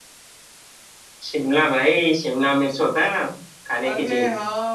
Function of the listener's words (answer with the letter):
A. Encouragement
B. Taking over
B